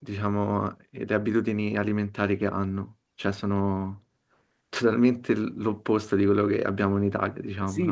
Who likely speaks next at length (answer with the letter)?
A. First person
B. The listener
B